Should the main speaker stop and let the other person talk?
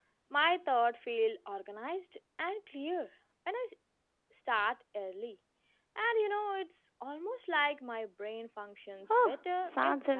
Yes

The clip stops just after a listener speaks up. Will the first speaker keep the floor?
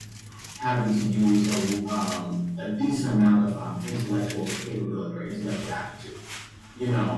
Yes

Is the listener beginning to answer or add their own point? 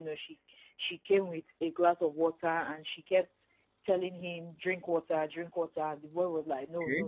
No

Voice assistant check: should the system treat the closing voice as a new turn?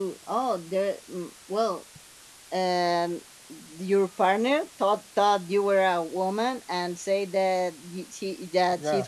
No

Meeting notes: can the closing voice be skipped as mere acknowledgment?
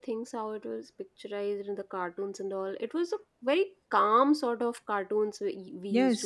No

